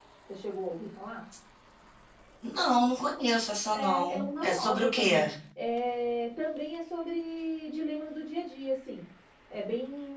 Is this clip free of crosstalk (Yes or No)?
No